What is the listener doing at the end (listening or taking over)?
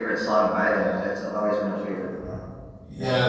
taking over